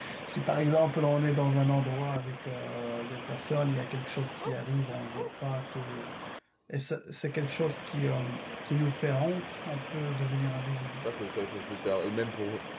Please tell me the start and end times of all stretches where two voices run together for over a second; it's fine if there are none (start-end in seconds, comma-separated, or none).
none